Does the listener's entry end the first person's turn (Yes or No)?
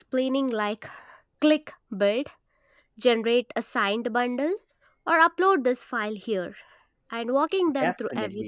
Yes